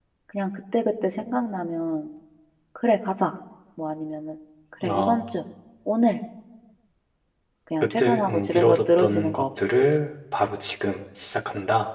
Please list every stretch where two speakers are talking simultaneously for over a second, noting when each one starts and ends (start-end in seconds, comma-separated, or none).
8.0-9.7